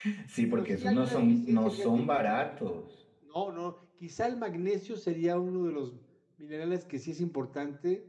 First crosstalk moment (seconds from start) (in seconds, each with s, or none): 0.5 s